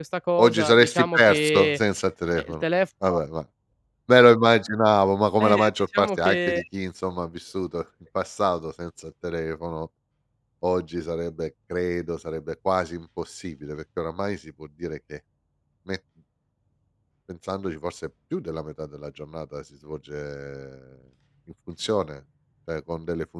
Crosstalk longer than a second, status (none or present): present